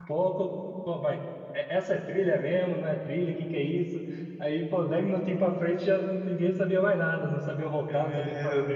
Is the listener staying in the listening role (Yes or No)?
No